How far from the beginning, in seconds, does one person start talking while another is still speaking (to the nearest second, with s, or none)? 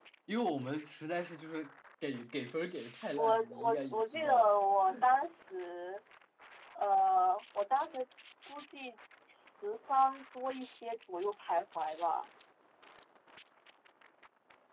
3 s